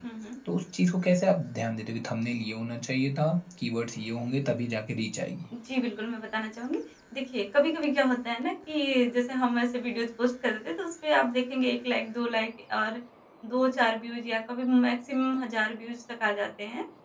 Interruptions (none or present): none